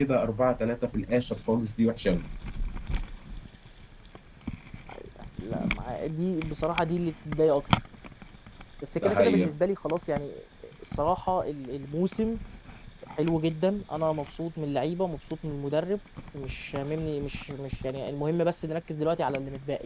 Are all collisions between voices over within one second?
Yes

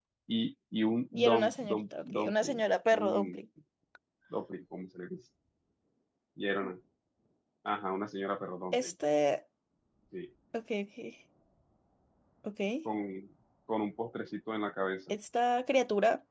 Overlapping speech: Yes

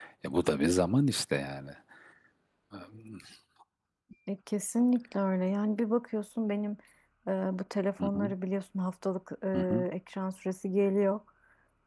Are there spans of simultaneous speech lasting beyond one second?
No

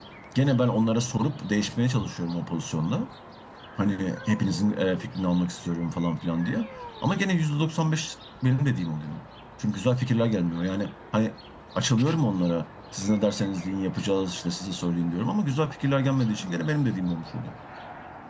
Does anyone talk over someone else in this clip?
No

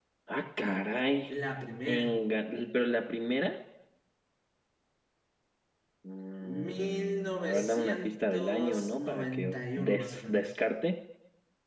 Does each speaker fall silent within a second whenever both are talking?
No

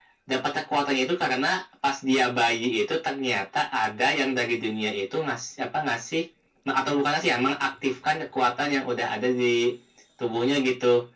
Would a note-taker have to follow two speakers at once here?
No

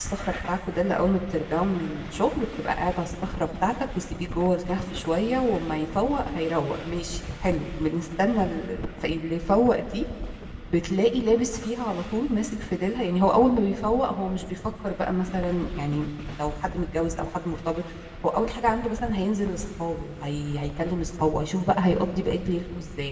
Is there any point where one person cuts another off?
No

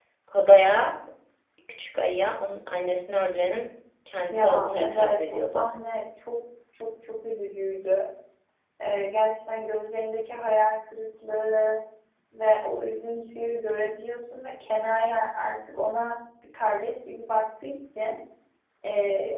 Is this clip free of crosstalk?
No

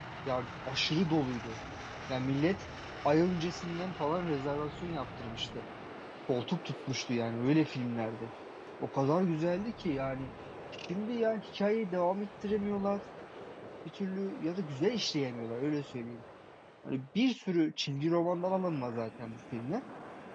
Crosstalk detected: No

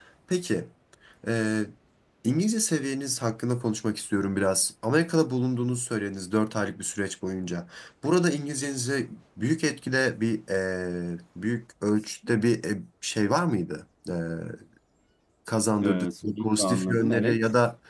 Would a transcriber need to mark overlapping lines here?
Yes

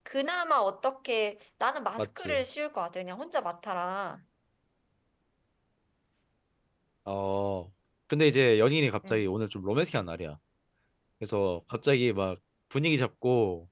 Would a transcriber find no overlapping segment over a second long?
Yes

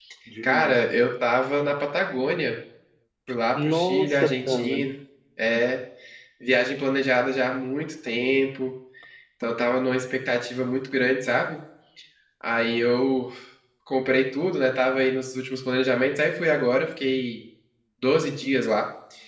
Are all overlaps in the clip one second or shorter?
No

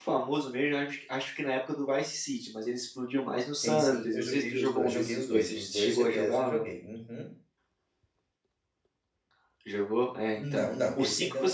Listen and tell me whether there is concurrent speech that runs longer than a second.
Yes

